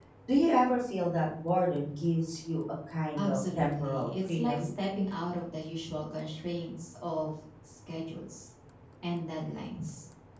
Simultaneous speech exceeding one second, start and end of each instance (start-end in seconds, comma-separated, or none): 3.2-4.7